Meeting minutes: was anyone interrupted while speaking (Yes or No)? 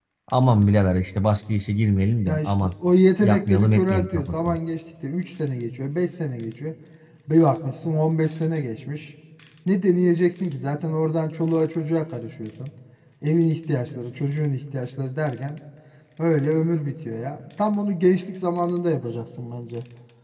Yes